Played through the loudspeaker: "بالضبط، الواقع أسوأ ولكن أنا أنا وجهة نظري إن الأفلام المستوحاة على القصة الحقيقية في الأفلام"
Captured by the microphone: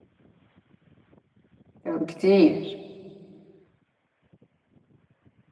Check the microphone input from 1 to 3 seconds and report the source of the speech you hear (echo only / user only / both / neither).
user only